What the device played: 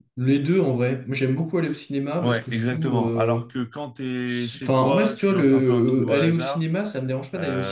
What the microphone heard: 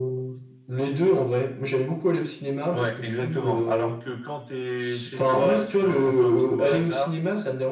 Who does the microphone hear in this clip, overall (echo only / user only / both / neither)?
echo only